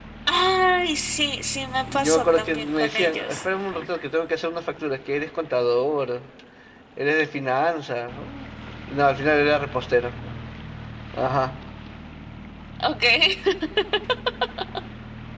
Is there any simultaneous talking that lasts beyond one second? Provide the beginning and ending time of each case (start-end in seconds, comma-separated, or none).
1.8-3.4